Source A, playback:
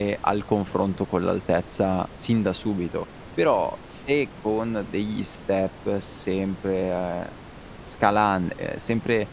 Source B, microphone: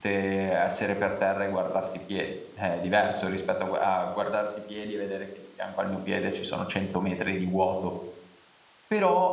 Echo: none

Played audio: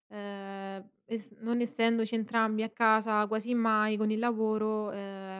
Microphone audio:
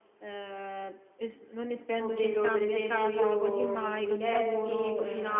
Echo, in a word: present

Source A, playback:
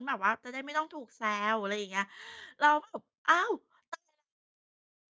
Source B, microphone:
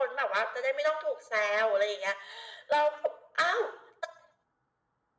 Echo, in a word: present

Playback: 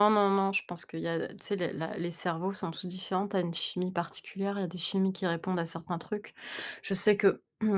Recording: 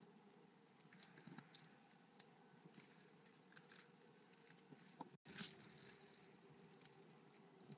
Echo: none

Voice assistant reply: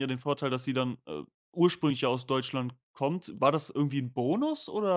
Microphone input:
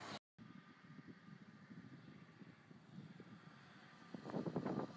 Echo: none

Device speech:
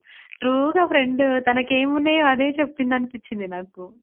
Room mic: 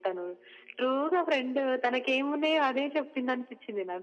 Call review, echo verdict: present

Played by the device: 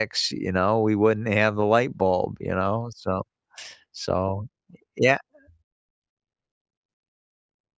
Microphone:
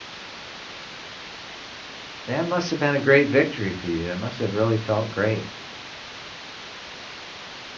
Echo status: none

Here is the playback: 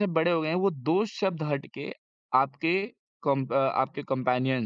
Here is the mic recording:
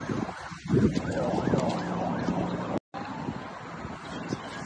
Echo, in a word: none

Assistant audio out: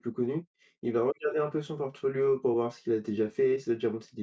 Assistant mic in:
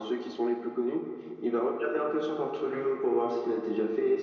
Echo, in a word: present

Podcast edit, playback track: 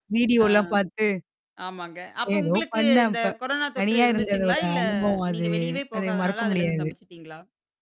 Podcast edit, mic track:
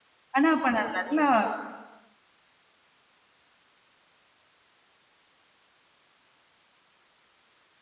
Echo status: none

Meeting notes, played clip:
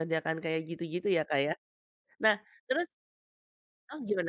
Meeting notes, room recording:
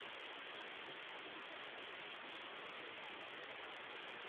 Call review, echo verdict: none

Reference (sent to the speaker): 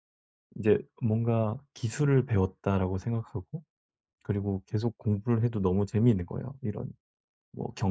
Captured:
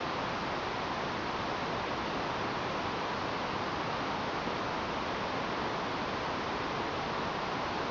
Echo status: none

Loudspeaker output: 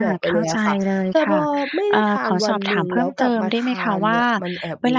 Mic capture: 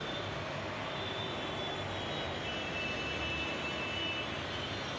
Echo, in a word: none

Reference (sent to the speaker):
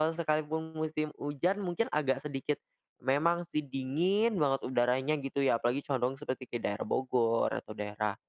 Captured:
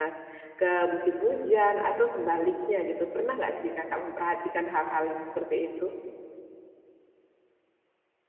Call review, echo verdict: none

